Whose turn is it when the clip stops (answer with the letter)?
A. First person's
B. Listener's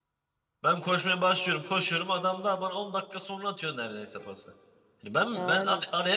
B